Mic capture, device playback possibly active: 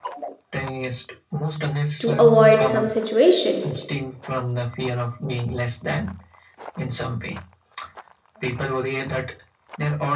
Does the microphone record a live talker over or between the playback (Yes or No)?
Yes